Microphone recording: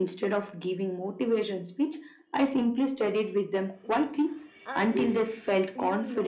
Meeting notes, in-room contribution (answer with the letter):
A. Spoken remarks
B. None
A